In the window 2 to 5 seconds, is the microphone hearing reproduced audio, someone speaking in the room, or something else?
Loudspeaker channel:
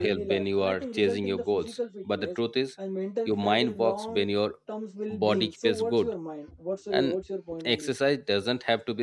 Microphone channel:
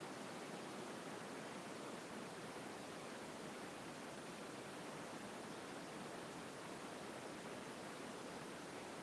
neither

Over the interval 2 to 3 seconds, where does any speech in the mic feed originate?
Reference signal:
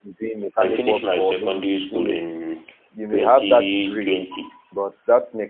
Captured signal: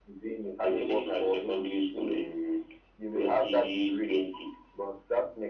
echo only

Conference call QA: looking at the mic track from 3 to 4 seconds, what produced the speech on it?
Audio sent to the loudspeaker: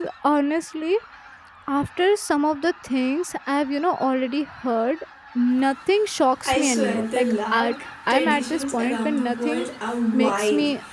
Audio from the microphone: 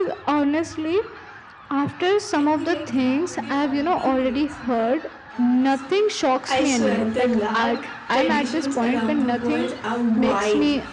both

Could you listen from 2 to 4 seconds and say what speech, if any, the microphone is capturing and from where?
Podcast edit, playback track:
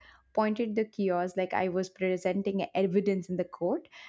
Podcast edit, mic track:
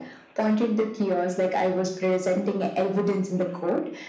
echo only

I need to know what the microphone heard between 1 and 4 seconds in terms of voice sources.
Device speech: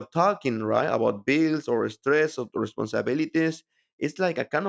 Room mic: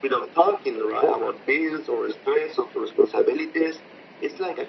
echo only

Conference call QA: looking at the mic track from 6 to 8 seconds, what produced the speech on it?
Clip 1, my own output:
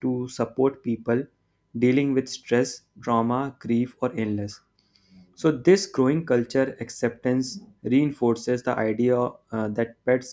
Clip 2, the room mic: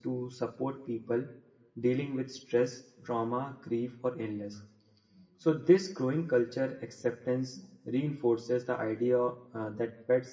echo only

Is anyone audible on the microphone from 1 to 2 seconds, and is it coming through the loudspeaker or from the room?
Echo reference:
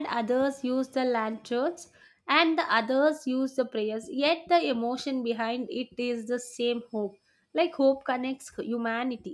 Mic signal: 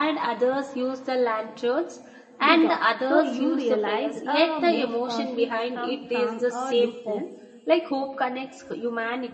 echo only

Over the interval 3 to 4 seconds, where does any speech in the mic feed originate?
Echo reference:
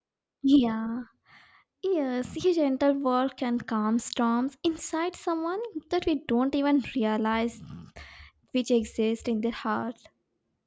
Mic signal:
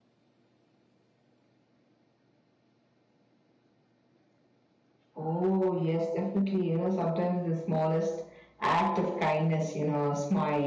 neither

